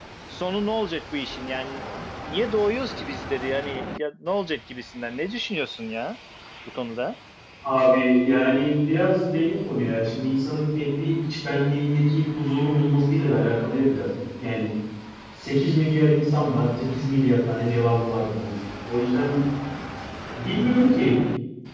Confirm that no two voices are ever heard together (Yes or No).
Yes